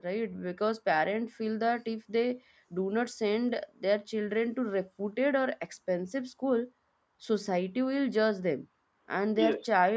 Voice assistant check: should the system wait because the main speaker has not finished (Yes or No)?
Yes